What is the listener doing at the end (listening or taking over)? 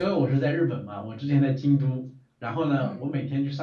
listening